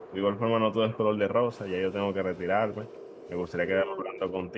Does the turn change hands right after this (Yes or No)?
No